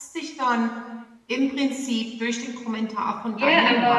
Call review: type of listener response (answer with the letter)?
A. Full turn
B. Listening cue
A